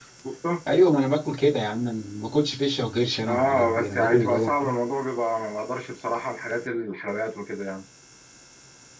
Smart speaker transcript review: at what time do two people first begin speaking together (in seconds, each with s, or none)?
3.3 s